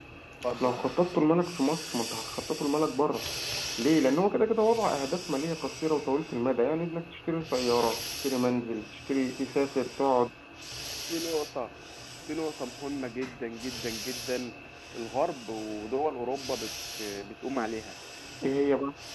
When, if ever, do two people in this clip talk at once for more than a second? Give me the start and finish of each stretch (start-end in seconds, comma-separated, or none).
none